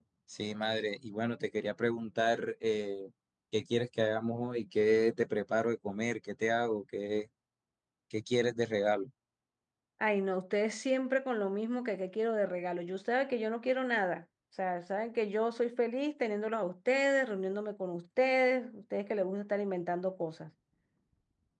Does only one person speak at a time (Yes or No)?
Yes